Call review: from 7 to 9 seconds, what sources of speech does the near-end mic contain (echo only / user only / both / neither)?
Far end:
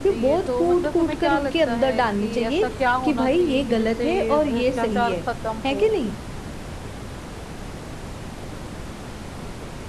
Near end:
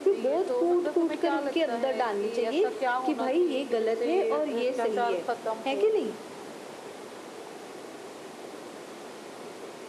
neither